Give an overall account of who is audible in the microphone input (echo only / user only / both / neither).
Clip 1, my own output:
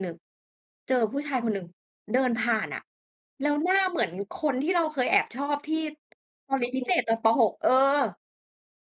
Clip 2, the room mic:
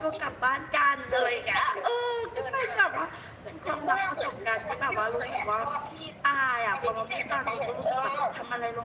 both